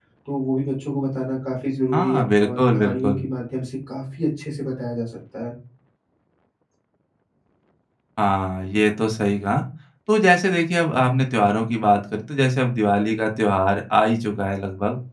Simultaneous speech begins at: 1.9 s

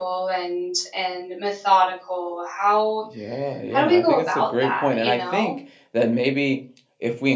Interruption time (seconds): 3.7 s

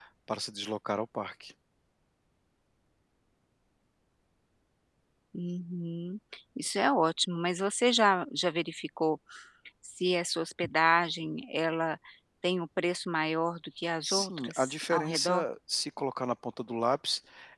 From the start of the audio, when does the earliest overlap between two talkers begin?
14.0 s

